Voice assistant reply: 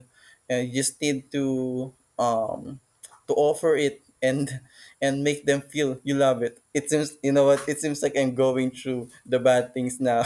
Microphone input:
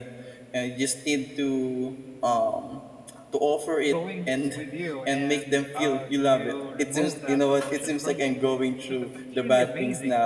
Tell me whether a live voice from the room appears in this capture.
Yes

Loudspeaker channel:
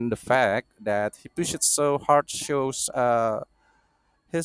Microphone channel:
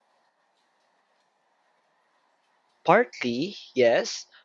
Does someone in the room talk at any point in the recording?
Yes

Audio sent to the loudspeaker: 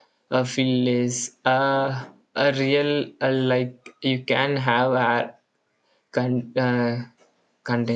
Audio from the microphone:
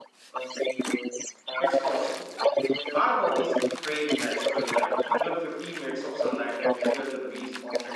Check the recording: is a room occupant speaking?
Yes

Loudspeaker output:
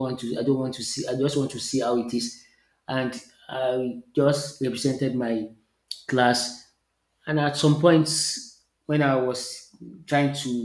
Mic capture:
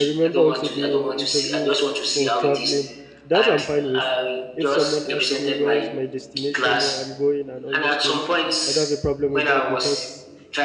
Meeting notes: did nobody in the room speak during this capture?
No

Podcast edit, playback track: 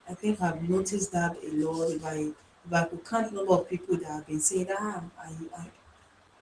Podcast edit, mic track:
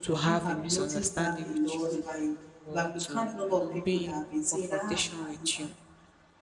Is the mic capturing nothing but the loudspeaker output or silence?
No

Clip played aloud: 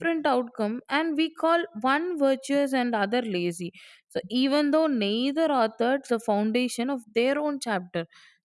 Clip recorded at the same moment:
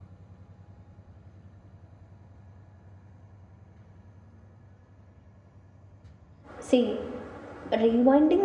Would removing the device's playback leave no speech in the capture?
No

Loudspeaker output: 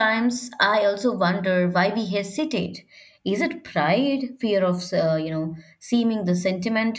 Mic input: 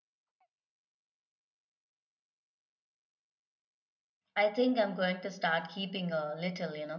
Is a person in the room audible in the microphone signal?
Yes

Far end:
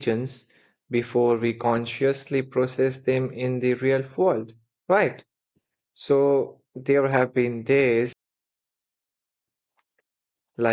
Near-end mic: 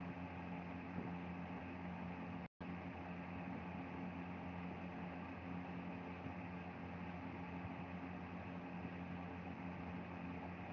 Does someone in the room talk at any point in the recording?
No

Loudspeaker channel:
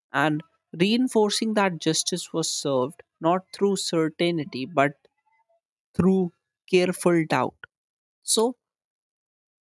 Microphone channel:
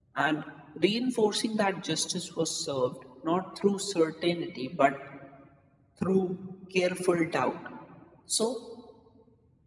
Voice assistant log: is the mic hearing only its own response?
Yes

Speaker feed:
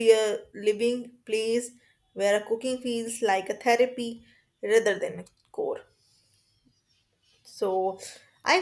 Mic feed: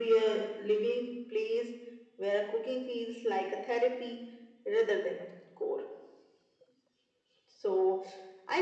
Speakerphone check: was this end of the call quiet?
Yes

